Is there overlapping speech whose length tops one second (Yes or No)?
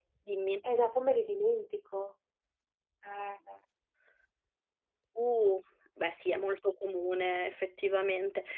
No